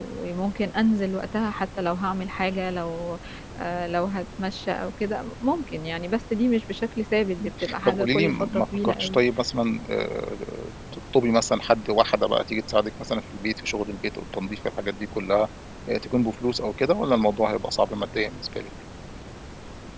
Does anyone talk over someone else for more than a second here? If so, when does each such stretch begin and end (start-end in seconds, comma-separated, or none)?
7.4-9.2